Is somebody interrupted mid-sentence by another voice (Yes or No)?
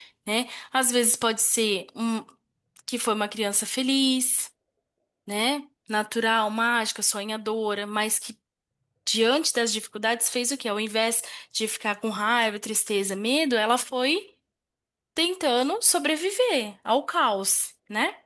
No